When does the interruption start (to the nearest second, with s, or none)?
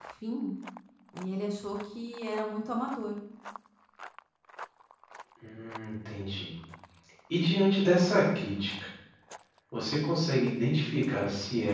none